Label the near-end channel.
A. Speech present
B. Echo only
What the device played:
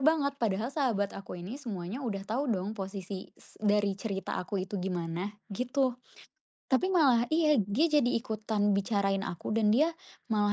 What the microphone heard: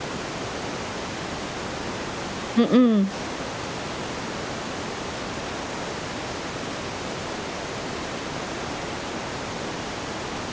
A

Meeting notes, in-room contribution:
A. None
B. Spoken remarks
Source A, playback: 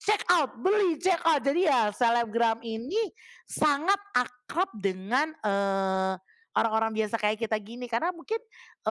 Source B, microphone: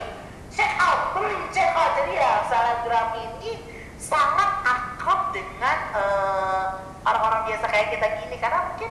A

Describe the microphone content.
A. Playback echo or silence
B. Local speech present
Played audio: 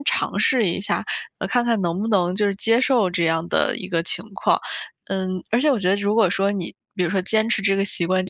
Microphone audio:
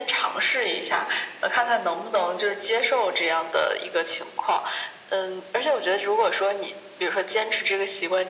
A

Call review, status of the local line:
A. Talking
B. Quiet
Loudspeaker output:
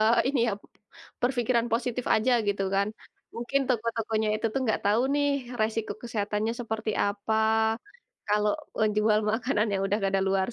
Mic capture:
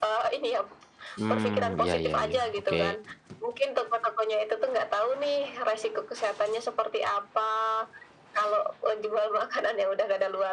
A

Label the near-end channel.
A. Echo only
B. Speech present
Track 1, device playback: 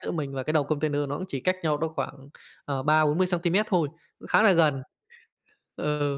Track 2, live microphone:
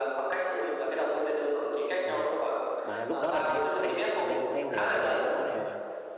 B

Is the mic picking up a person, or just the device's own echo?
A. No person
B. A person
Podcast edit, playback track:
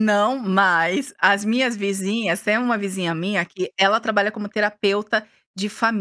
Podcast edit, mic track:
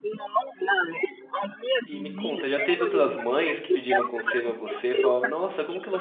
B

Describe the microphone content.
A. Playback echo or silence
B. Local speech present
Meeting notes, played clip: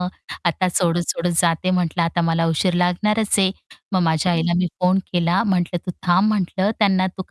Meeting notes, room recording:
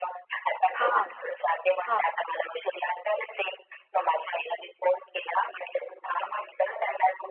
B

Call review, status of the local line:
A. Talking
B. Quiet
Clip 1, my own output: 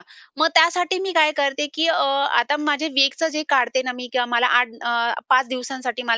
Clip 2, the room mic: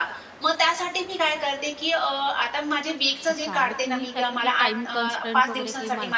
A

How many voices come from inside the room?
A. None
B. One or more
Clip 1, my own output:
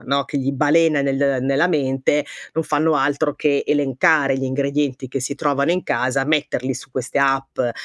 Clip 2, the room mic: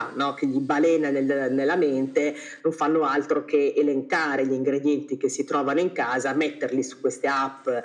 A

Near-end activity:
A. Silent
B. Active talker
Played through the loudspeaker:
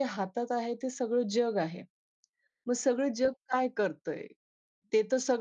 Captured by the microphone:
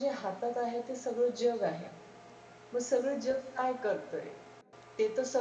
A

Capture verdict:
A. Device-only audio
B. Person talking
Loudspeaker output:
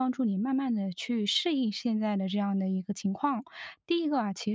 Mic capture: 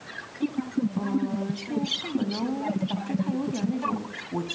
B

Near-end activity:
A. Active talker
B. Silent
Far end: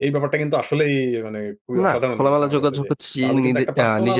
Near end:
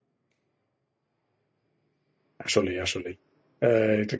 A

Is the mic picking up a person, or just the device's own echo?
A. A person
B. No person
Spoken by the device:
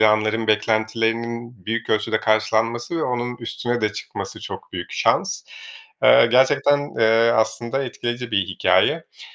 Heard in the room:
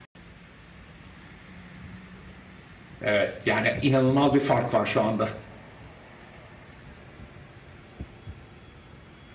A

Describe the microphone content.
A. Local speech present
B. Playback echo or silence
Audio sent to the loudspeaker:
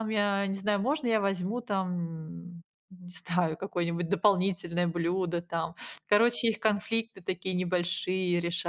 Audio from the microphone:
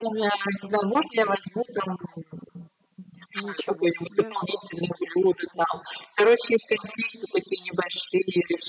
A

